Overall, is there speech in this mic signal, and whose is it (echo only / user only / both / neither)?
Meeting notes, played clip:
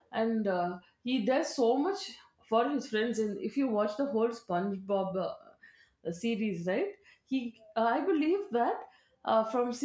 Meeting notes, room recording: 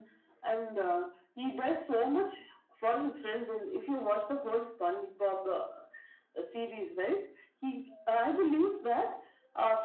echo only